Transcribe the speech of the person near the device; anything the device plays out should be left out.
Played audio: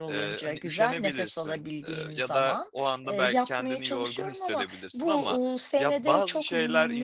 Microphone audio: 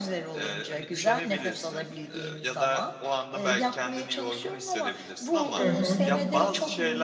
Hı hı.

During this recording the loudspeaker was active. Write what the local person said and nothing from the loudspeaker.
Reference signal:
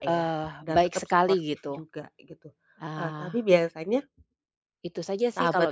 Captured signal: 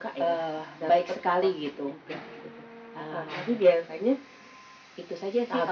none

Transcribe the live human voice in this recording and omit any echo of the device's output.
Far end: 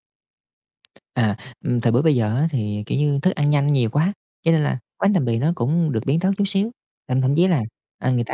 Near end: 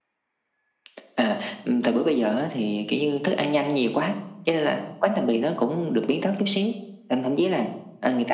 none

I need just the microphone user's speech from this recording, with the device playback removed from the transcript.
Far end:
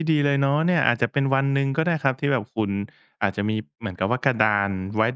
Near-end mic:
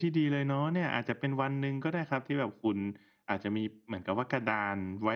none

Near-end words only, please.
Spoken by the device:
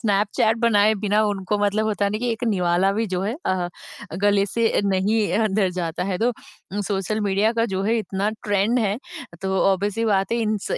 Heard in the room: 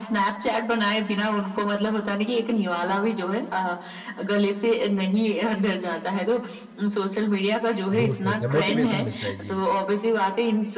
बूस्ट होता है, मोटिवेशन मिलता है। जी,

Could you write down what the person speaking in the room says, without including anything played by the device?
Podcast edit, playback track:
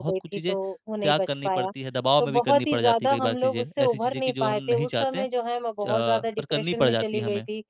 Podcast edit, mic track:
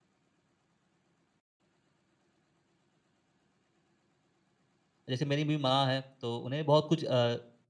जैसे मेरी भी माँ है, तो उन्हें बहुत कुछ अ

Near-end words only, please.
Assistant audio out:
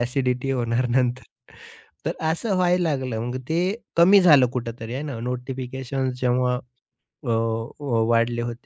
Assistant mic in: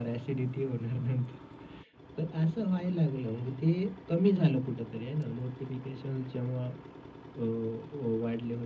none

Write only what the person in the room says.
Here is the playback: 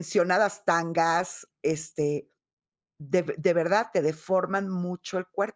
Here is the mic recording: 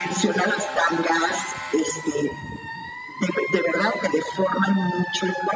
none

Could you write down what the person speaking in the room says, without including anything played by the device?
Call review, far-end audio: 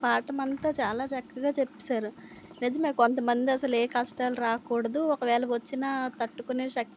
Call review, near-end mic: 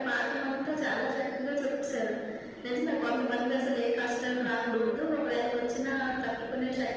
ఇప్పుడు

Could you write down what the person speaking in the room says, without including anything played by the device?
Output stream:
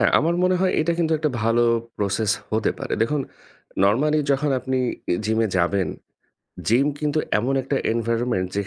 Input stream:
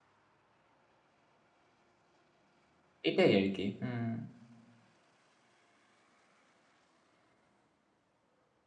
এটাই আরকি। হুম,

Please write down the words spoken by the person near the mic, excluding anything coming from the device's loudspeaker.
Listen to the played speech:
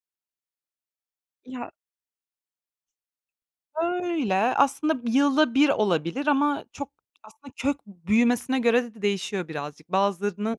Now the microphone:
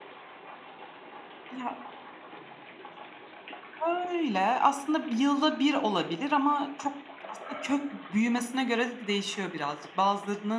none

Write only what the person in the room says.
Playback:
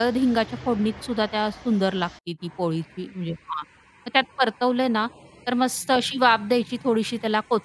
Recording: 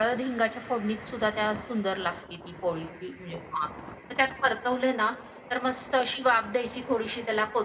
none

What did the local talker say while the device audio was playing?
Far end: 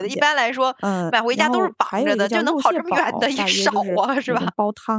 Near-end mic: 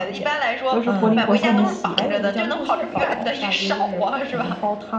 都是活灵活现的写。”

